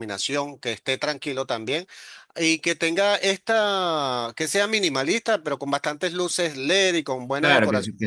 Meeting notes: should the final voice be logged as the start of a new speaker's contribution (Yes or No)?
Yes